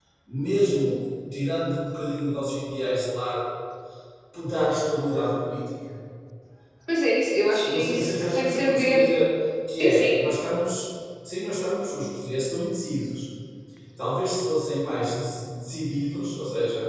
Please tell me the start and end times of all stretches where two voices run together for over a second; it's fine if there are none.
7.7-9.1

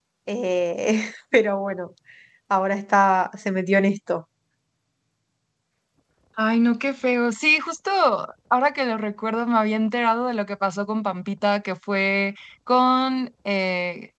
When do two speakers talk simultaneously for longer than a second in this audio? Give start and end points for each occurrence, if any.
none

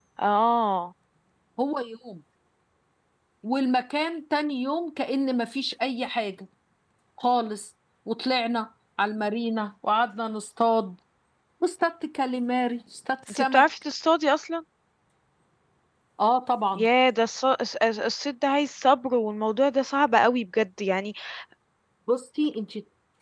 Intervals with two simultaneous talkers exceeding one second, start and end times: none

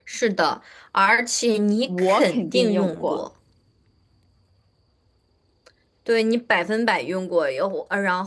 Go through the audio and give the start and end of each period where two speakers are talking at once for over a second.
1.9-3.2

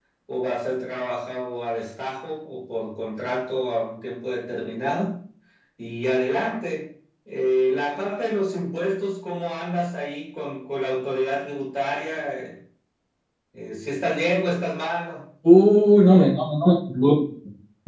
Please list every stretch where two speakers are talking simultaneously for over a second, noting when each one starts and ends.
none

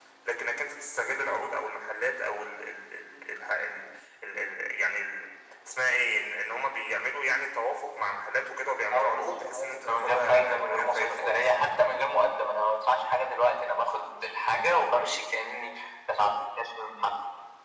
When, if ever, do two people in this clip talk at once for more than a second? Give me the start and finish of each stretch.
8.9-11.5

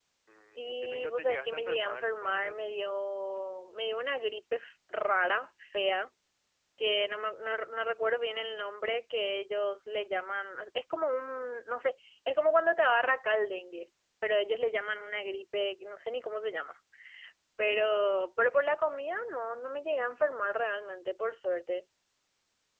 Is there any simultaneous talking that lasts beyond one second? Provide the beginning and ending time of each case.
0.6-2.8

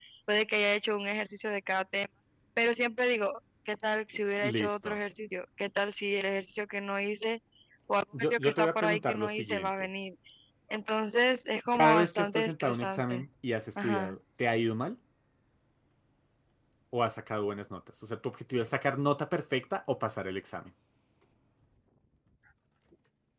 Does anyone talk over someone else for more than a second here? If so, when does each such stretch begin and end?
8.2-9.9, 11.7-13.2

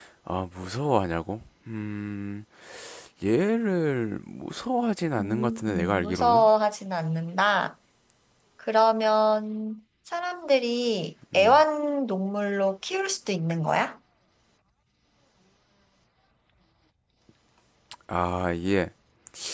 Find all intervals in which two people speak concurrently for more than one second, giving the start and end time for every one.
5.2-6.5

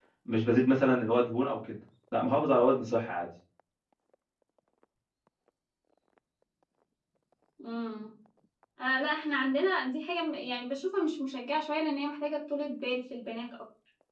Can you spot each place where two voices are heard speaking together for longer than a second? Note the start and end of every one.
none

